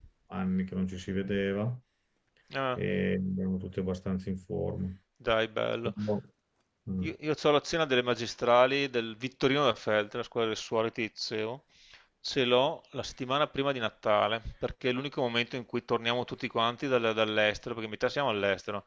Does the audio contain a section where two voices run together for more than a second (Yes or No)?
No